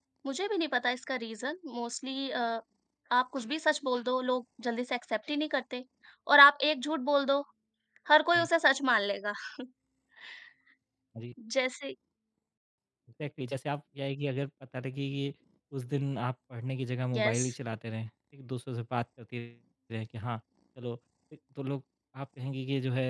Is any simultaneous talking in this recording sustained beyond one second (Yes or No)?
No